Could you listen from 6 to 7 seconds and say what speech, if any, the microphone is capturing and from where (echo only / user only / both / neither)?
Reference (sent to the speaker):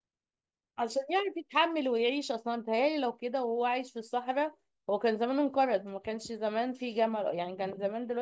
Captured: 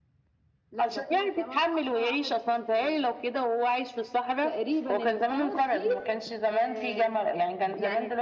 both